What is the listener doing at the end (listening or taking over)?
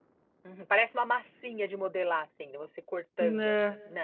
taking over